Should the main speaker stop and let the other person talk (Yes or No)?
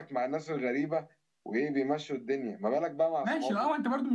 Yes